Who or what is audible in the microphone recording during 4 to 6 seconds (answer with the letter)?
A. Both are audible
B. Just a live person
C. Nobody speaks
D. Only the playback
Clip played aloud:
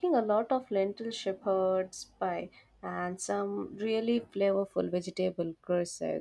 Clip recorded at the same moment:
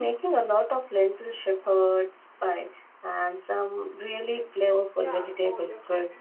A